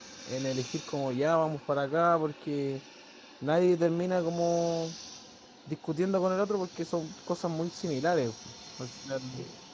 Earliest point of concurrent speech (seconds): none

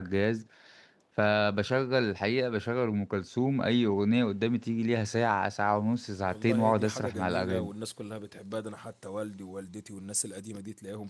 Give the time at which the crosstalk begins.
6.3 s

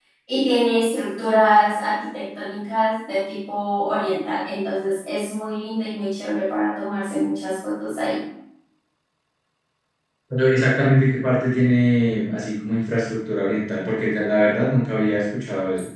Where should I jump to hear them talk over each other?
none

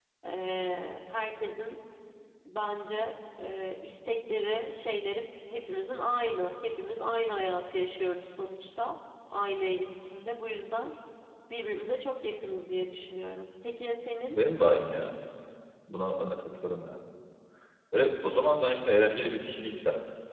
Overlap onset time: none

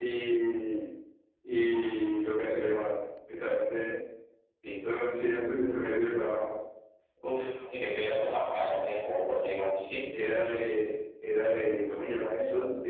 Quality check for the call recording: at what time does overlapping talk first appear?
none

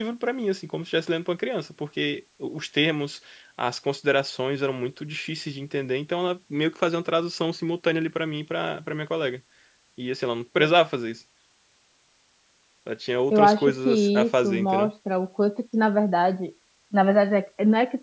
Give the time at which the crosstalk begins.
13.3 s

